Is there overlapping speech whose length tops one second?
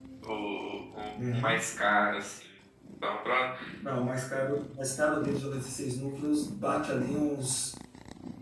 No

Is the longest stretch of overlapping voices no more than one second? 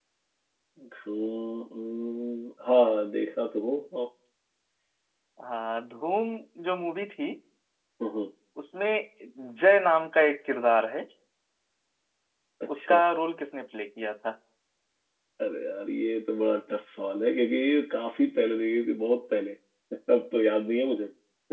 Yes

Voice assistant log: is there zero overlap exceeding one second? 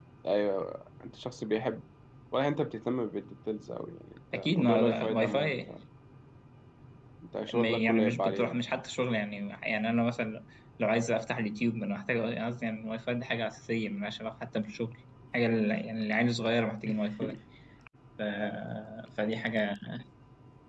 No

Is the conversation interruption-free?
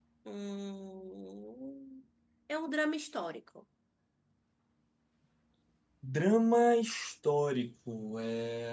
Yes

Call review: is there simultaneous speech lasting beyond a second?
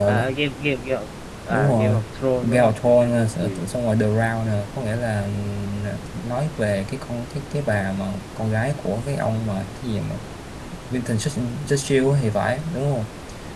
Yes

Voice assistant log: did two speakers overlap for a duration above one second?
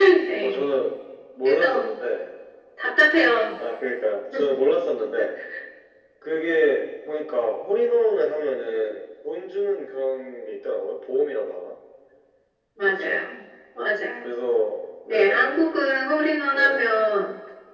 No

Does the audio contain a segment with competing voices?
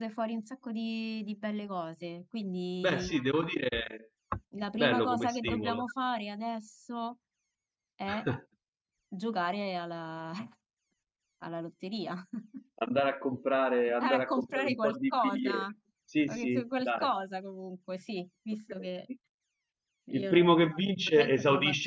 Yes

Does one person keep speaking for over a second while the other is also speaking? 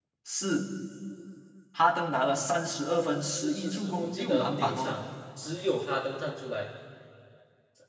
Yes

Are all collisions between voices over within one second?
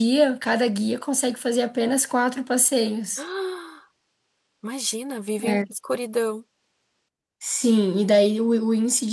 Yes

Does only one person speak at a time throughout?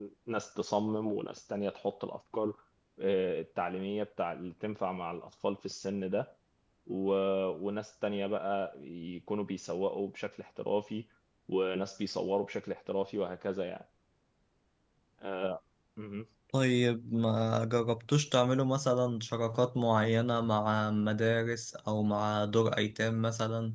Yes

